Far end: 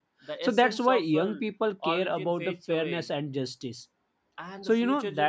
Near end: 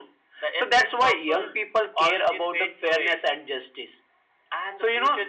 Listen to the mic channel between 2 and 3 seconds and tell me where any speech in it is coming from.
echo only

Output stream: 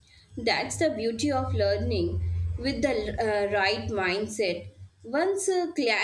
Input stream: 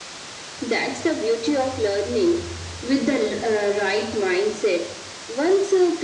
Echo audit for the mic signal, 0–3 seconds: echo only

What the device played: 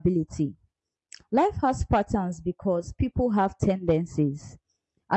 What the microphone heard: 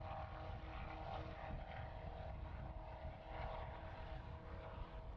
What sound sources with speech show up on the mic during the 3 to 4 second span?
neither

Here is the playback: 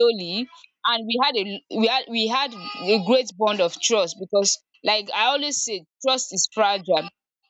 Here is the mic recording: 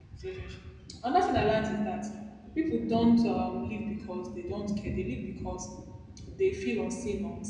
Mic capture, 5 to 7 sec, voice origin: user only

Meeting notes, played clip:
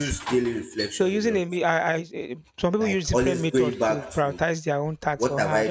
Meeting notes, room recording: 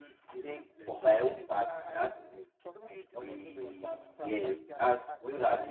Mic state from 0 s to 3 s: both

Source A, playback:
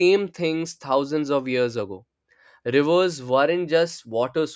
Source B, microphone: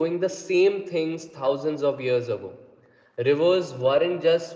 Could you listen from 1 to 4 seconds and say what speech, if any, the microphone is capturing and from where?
echo only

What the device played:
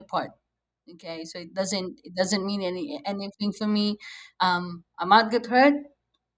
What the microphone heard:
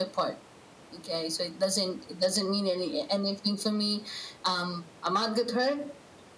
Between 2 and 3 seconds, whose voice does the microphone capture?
echo only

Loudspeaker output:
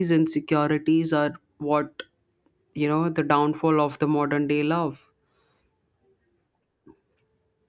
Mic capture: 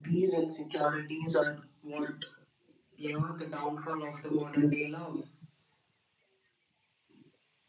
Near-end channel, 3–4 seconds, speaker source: echo only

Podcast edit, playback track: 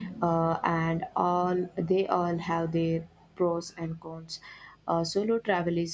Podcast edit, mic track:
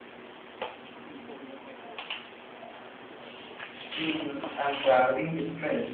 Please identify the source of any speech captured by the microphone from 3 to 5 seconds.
user only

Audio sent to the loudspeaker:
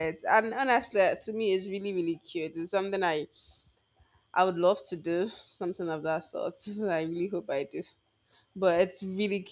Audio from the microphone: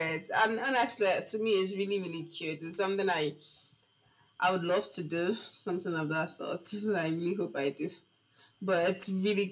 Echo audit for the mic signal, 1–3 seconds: echo only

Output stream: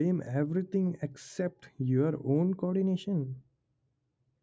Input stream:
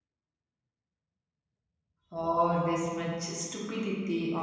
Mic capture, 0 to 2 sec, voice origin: neither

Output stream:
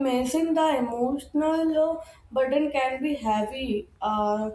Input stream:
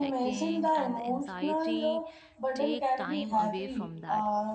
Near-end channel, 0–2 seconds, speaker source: both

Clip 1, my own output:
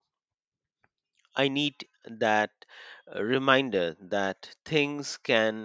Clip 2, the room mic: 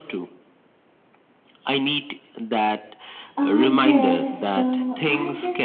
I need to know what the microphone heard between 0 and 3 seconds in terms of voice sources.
echo only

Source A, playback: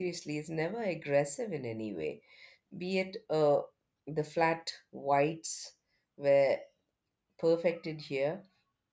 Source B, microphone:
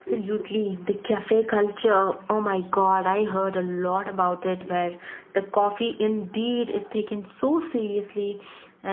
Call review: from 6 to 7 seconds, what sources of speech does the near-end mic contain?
user only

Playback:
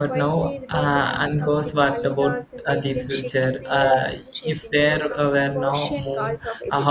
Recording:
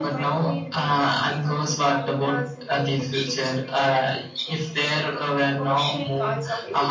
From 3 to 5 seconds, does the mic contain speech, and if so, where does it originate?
echo only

